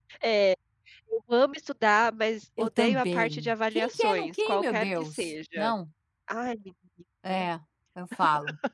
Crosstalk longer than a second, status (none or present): present